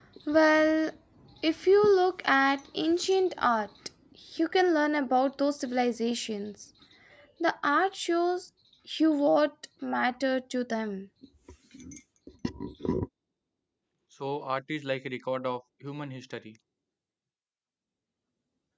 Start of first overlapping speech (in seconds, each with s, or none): none